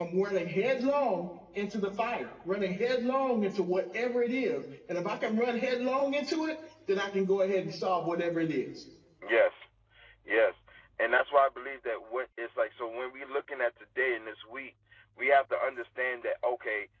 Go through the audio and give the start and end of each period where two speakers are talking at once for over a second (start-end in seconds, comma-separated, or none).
none